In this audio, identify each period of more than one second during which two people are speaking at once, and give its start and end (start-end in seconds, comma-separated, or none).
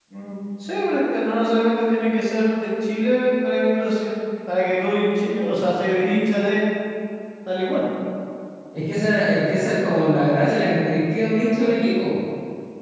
none